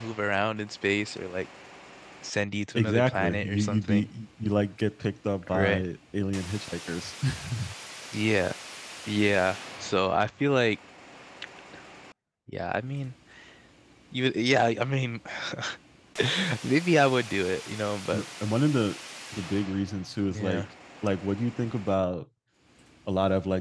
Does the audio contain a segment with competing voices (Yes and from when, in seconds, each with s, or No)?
Yes, from 2.8 s